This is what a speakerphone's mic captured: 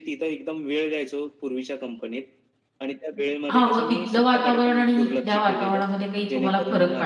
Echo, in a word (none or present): present